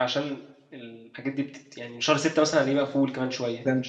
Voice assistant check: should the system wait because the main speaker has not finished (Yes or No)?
No